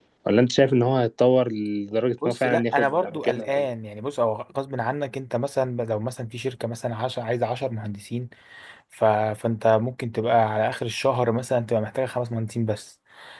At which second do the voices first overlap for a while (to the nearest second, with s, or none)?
2 s